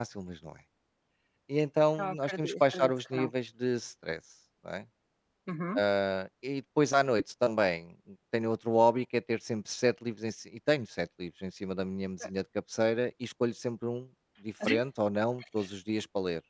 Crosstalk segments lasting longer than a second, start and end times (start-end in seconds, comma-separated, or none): 2.0-3.3